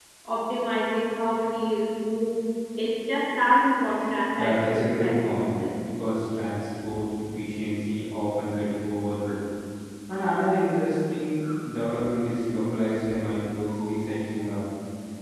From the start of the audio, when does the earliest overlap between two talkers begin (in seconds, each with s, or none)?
4.4 s